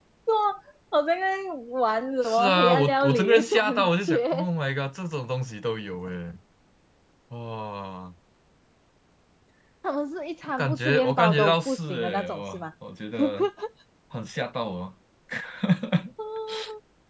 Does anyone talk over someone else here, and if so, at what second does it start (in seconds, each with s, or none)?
2.2 s